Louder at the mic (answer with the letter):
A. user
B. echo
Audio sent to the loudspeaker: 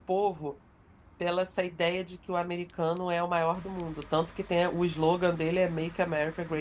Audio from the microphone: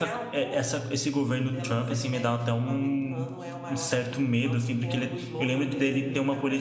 A